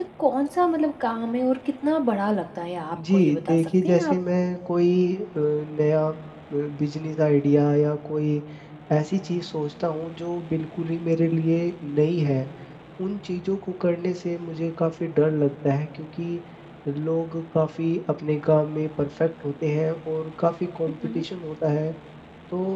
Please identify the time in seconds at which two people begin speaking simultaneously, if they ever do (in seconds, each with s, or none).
3.0 s